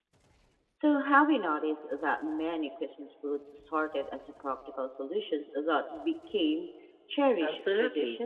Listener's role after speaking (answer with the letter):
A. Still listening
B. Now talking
B